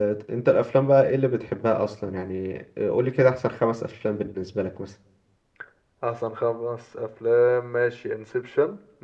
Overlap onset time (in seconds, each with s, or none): none